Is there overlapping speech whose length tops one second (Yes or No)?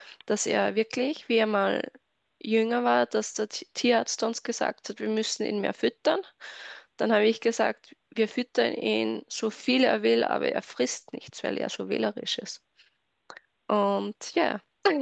No